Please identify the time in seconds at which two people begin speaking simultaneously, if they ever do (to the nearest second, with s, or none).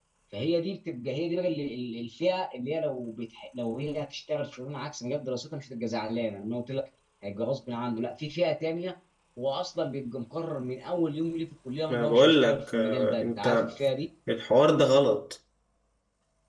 12 s